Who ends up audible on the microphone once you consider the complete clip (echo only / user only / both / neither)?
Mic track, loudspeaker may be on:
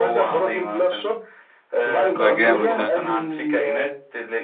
both